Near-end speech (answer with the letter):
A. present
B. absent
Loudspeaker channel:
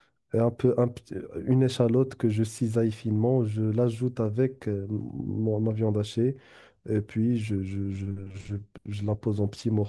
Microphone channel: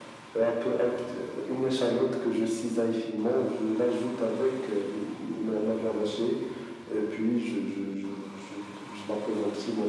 B